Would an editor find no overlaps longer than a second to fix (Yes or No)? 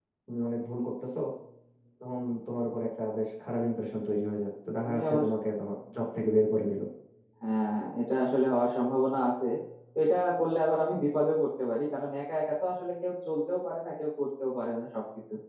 Yes